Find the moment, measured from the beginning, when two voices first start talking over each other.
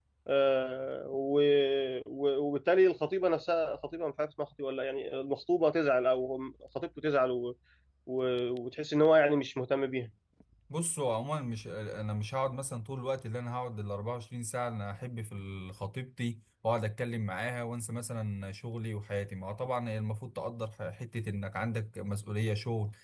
none

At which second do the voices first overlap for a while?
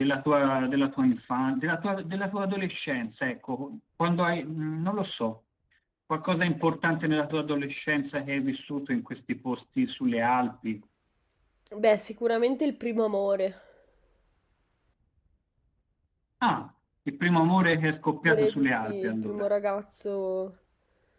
18.2 s

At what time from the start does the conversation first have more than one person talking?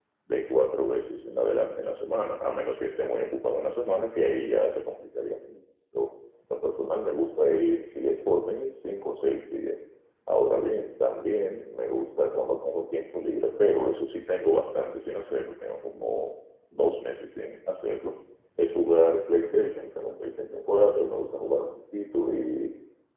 none

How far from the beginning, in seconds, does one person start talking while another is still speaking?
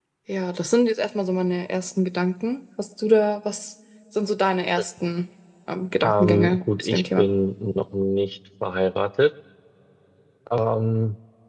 6.0 s

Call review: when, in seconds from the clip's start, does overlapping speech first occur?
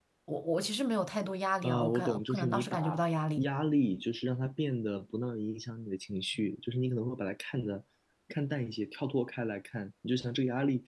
1.6 s

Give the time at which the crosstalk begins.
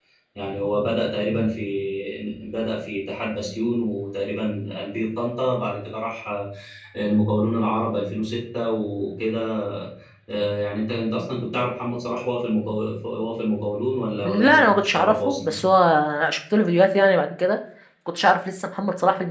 14.2 s

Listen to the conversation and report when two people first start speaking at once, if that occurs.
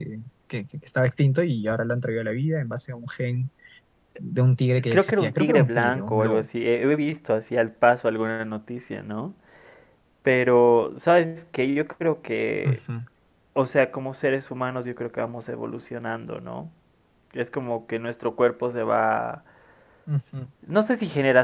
4.9 s

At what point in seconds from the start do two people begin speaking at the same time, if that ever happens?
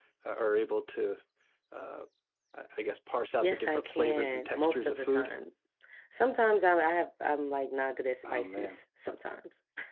3.4 s

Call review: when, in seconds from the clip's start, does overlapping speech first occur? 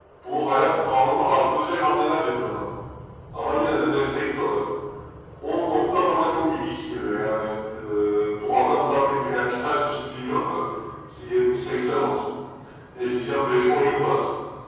none

